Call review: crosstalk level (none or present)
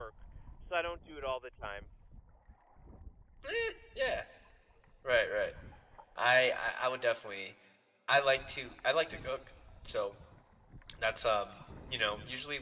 none